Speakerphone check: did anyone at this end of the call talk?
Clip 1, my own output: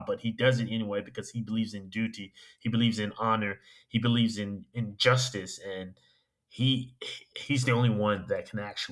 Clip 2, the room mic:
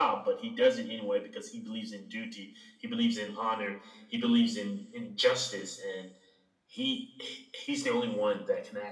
No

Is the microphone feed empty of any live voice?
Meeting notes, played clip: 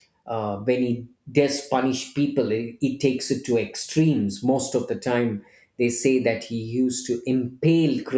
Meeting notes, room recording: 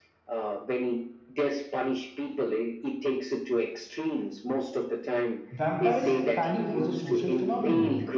No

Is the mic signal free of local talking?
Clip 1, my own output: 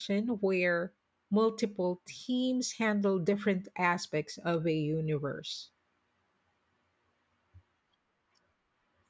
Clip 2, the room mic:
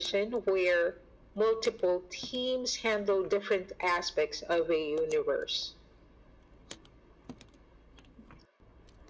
Yes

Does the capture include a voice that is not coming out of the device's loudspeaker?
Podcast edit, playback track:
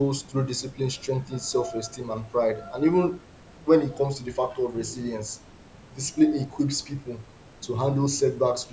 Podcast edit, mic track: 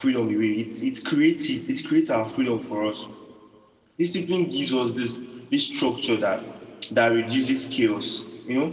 Yes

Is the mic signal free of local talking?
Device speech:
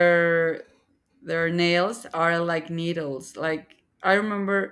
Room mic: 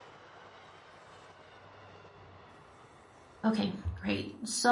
No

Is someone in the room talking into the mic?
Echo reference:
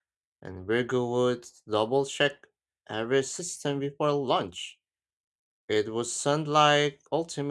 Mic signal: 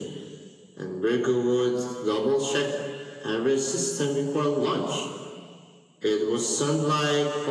No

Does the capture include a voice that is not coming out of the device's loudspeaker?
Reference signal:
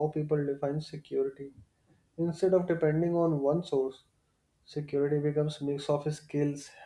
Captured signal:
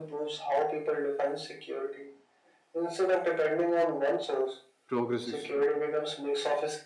Yes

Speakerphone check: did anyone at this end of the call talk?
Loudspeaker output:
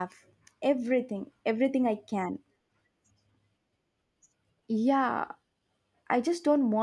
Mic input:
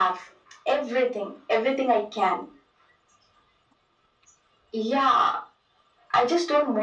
No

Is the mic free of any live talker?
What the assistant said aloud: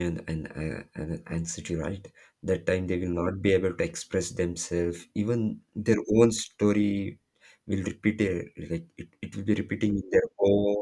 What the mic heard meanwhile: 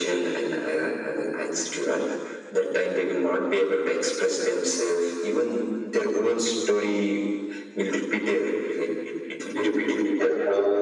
Yes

